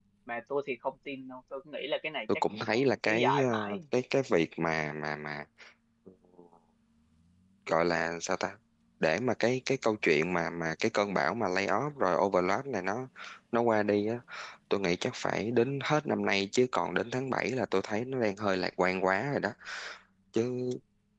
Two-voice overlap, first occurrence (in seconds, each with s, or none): 2.5 s